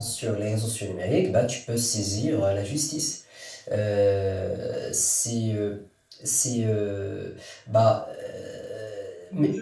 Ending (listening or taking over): taking over